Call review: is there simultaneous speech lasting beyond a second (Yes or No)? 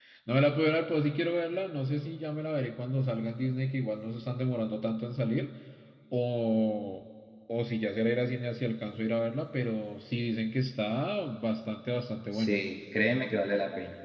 No